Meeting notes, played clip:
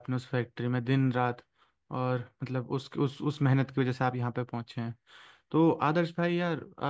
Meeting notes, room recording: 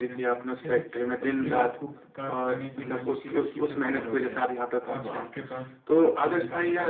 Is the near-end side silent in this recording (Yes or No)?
No